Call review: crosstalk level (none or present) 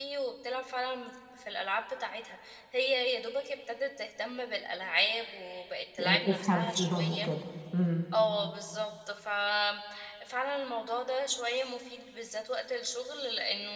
present